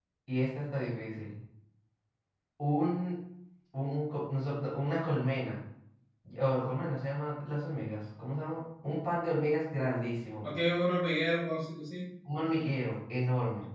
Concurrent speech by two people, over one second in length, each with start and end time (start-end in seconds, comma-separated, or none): none